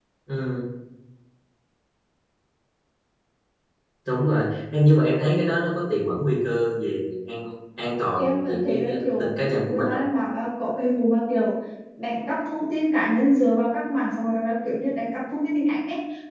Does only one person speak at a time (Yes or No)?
No